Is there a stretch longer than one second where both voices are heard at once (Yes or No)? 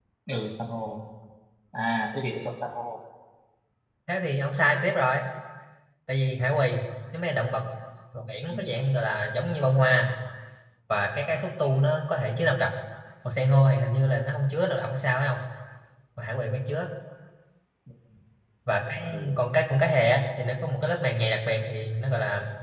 No